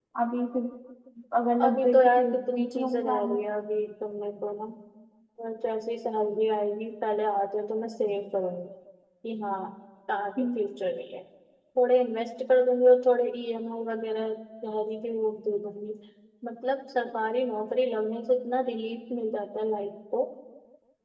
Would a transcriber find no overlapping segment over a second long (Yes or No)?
No